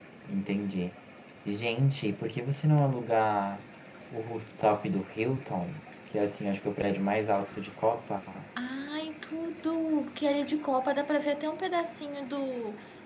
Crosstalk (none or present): none